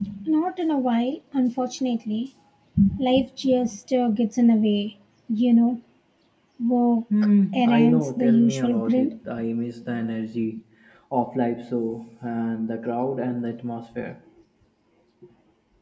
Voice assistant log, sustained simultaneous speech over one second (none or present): present